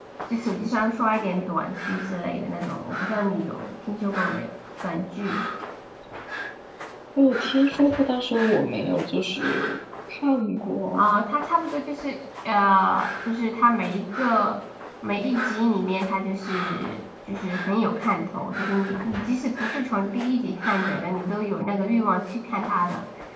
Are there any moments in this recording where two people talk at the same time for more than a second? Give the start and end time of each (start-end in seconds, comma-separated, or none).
none